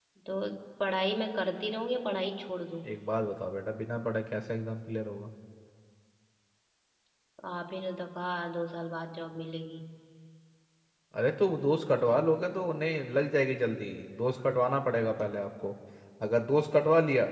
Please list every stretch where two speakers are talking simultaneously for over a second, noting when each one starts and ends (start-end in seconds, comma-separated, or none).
none